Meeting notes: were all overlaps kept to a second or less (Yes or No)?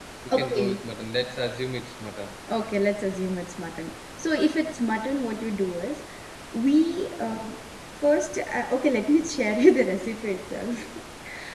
Yes